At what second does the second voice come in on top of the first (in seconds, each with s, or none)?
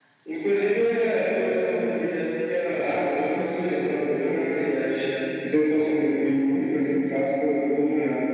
2.8 s